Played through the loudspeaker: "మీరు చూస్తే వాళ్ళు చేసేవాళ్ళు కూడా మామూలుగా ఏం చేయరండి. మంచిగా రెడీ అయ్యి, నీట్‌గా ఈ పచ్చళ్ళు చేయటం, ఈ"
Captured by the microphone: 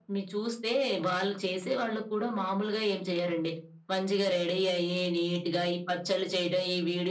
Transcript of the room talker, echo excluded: none

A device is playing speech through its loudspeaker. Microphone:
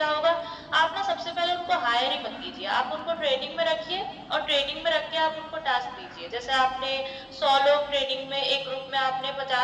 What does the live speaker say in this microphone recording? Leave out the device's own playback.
none

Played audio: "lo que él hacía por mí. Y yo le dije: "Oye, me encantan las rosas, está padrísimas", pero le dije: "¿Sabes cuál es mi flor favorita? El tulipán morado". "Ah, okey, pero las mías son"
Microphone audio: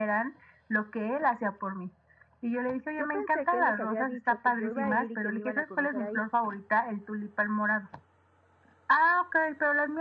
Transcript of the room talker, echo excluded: Yo pensé que él les había dicho que yo iba a ir y que me iban a conocer ahí.

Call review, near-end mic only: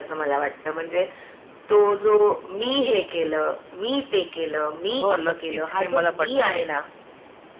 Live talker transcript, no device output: हो, नक्कीच हे मला पटतंय.

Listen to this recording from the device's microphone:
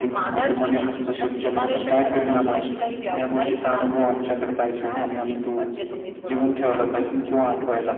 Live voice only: none

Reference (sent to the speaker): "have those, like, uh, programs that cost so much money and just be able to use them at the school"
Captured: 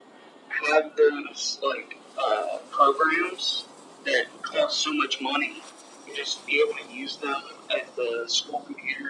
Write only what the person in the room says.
none

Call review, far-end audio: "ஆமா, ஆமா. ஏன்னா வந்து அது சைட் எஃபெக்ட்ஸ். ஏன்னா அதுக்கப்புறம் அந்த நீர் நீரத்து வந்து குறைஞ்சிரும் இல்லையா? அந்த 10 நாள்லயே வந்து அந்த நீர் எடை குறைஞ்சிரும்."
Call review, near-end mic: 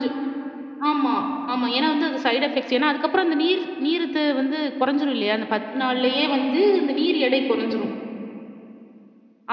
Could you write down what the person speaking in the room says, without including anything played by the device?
none

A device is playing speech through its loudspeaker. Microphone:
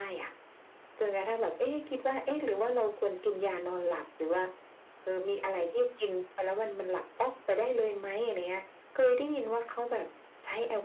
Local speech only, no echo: none

